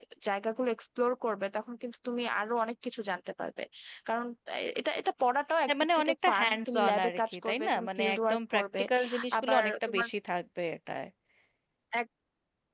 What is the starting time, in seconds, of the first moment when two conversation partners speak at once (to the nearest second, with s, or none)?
6 s